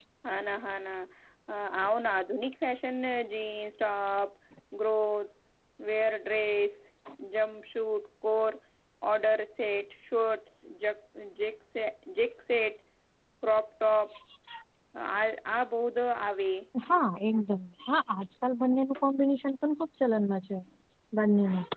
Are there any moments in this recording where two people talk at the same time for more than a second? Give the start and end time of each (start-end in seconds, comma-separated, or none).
none